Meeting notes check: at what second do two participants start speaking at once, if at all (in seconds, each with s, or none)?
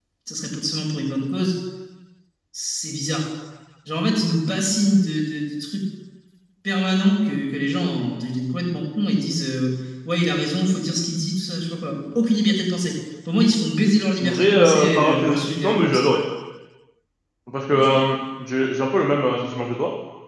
14.1 s